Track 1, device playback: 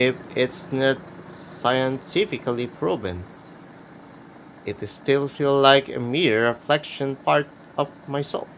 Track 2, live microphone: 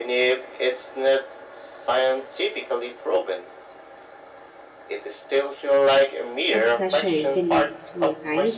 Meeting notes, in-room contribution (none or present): present